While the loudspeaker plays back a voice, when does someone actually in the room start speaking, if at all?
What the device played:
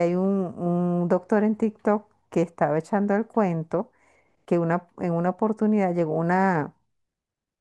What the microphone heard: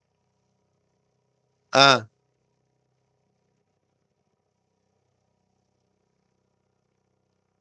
2 s

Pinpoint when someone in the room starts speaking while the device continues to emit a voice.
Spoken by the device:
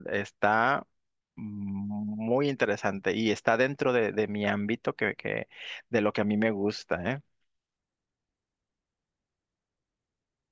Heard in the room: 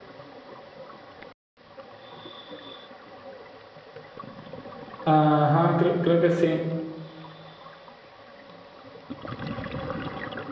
5 s

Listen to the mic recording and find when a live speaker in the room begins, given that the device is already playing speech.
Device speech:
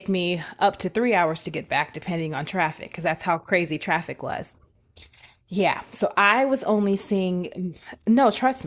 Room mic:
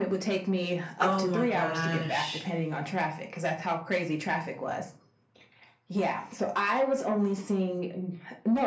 1 s

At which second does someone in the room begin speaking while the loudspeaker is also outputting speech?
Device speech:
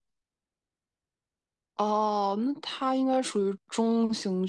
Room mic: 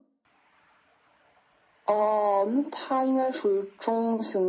none

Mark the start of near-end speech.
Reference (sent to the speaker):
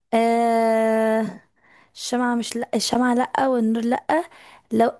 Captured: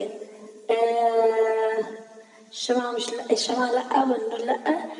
none

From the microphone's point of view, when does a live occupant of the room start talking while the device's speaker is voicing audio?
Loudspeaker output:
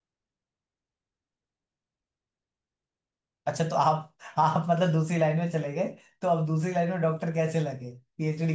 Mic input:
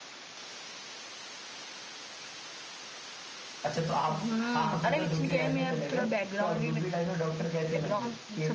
4 s

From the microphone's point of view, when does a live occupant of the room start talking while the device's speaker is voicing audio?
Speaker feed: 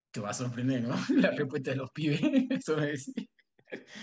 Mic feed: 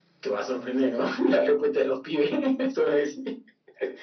none

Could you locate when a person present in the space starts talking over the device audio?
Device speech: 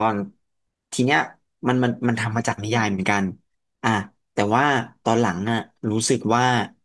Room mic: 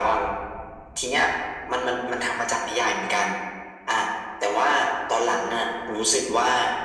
none

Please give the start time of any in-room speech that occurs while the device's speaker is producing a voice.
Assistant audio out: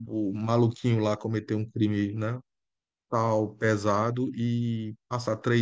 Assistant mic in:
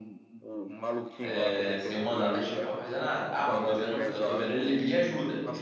1 s

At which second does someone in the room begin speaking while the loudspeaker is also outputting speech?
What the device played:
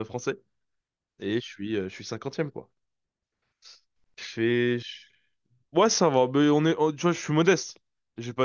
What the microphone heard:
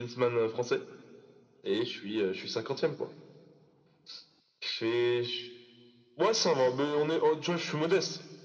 none

